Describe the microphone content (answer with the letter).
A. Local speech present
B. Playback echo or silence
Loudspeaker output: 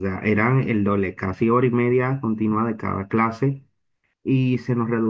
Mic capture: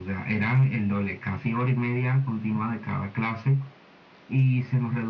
B